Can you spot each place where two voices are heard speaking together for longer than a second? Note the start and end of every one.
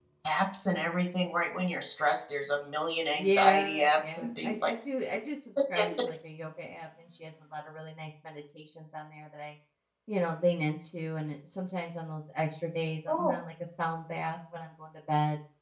3.1-4.7

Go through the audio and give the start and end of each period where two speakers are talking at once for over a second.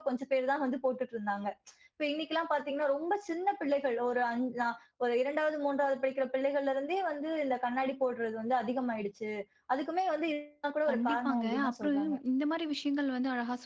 10.9-12.1

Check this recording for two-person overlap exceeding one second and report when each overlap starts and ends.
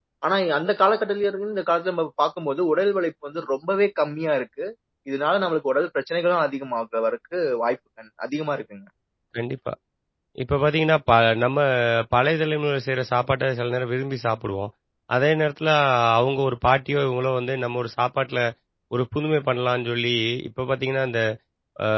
none

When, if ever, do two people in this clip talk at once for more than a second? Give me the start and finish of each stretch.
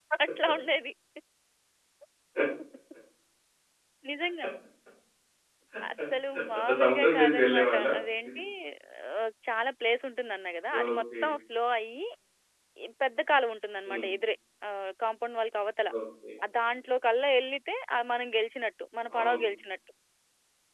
6.7-7.9

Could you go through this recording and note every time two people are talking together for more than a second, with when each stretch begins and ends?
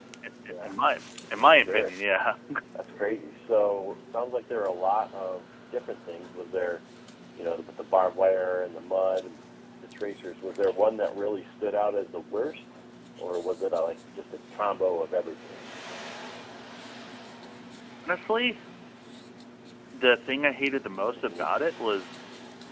none

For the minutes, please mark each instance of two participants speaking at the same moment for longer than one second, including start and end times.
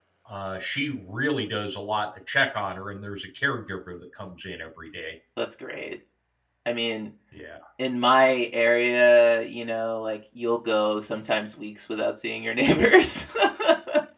none

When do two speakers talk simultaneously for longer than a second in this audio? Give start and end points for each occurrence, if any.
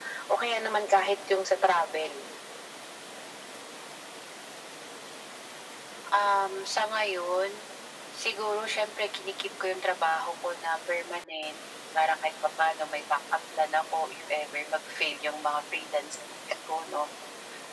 none

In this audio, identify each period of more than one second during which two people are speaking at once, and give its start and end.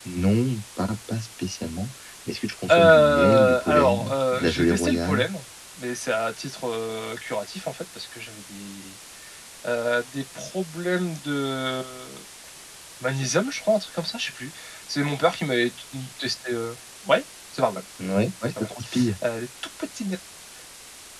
2.7-5.2

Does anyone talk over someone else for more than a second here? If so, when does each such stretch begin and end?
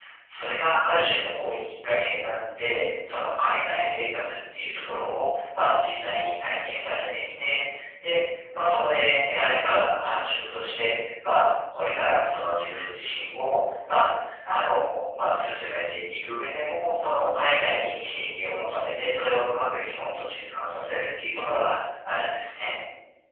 none

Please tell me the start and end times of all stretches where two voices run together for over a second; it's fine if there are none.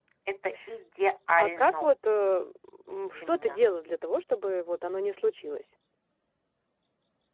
none

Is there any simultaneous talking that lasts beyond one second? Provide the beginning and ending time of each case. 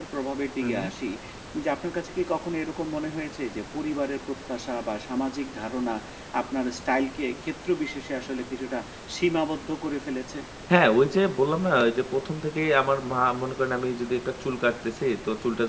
none

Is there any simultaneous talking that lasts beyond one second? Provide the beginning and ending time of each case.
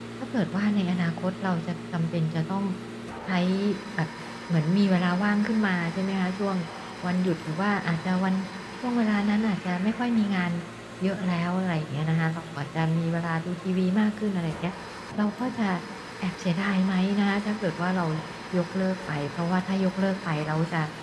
none

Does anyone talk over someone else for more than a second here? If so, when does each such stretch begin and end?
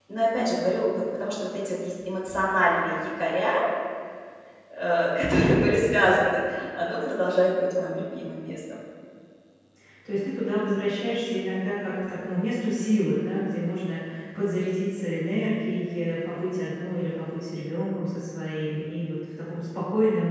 none

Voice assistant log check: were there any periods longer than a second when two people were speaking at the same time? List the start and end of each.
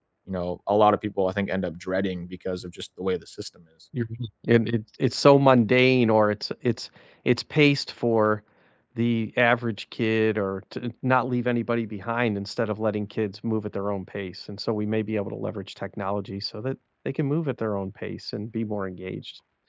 none

